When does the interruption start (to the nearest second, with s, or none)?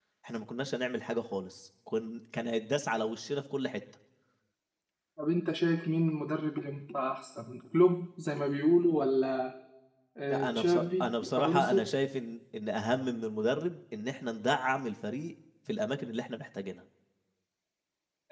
10 s